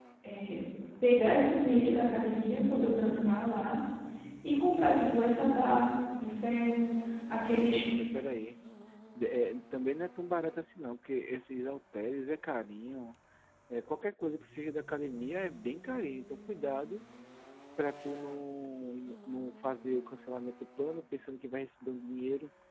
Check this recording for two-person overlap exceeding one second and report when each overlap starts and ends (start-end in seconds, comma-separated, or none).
none